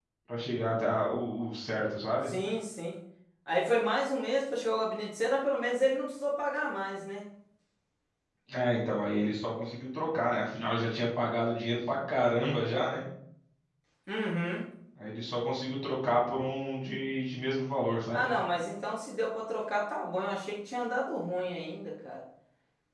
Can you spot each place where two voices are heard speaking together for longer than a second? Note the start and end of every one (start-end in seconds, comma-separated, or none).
none